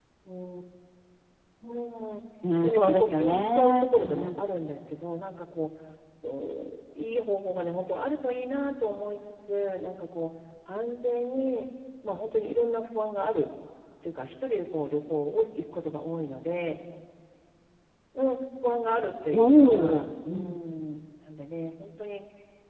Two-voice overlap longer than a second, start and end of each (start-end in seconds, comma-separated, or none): 2.7-4.4, 19.3-20.6